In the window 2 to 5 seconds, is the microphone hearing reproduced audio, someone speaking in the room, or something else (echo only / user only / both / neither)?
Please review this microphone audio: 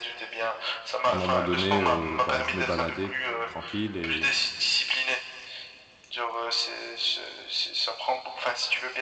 both